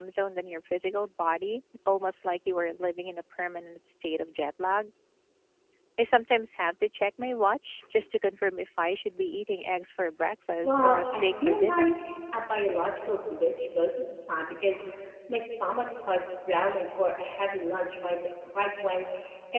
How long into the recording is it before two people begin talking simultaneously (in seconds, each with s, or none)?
10.6 s